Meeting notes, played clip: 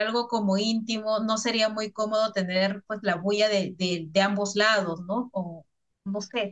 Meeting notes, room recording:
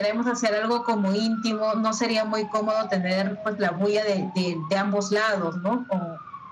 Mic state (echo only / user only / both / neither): echo only